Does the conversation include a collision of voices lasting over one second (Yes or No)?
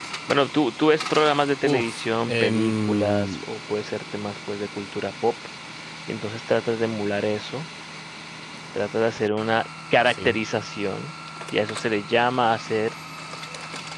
Yes